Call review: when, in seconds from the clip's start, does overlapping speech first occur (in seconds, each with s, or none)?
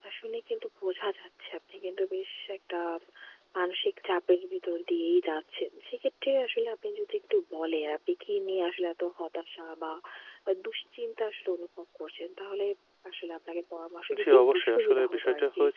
14.1 s